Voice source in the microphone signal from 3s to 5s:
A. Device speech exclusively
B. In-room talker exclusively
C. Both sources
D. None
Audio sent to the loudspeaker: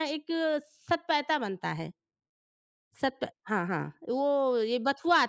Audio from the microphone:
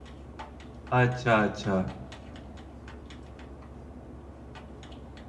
D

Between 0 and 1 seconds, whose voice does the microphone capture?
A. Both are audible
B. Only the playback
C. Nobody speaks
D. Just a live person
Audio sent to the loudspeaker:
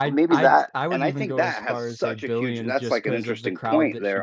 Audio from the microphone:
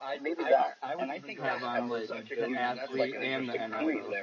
B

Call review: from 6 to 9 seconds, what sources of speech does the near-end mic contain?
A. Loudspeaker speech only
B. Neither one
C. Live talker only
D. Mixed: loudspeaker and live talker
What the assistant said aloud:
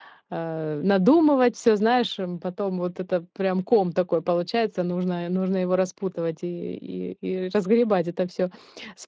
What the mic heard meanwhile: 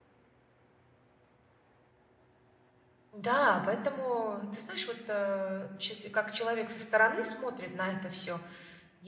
C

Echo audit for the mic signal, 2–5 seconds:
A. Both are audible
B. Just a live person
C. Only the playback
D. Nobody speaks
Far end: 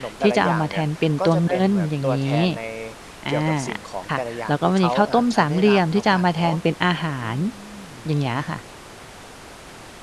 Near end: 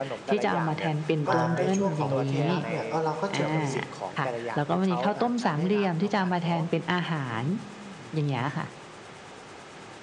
A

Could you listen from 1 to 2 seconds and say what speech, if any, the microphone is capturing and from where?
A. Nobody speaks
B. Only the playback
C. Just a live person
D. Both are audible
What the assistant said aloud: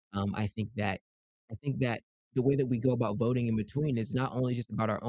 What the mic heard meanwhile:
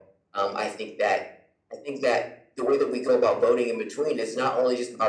B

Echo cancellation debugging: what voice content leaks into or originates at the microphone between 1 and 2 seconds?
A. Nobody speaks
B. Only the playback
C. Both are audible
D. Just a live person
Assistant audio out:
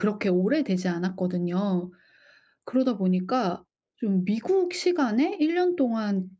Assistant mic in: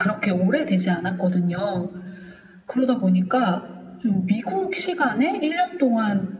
B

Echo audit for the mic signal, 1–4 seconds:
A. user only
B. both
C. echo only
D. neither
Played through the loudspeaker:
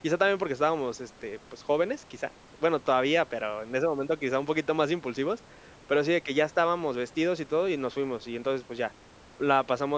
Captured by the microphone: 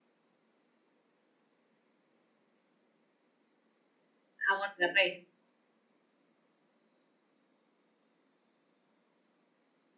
D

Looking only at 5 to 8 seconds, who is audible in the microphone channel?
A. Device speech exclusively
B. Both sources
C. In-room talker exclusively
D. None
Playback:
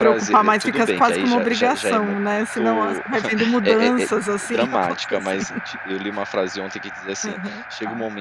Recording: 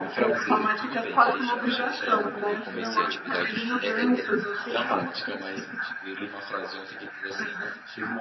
A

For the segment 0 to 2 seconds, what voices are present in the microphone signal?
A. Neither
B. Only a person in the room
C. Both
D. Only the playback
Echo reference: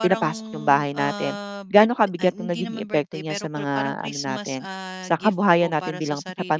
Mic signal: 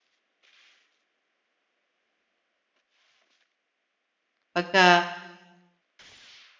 A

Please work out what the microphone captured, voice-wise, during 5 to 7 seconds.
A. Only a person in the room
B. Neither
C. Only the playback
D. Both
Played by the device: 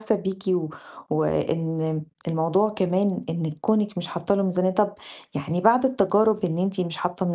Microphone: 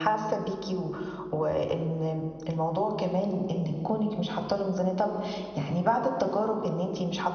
C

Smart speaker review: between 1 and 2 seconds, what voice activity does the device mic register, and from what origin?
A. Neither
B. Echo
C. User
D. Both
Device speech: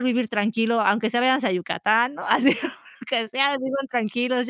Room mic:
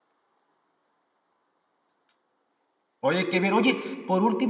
A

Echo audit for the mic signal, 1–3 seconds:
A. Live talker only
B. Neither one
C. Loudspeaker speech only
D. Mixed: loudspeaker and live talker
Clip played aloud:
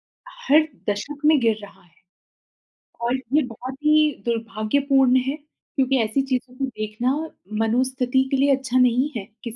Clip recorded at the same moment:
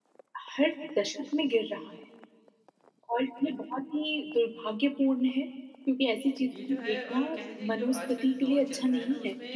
C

